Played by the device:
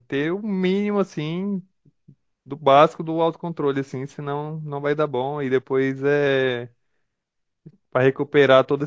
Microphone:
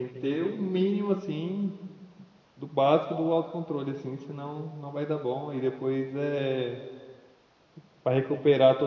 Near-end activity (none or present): none